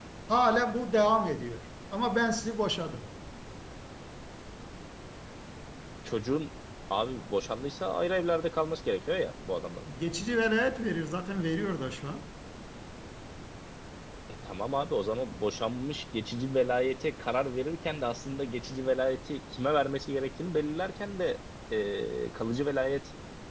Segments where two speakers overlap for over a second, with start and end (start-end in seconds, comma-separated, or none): none